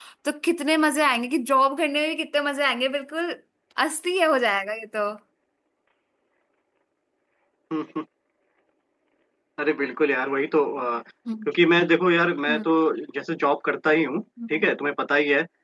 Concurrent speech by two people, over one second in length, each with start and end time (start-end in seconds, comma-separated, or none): none